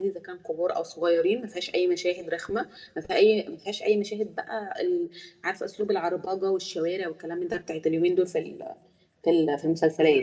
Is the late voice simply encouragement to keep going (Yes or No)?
No